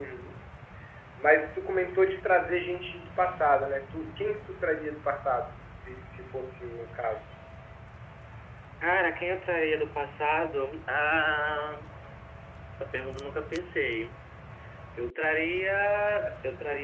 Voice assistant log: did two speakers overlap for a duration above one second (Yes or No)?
No